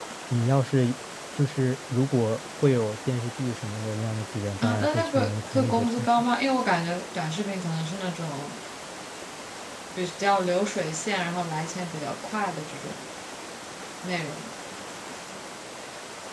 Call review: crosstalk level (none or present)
present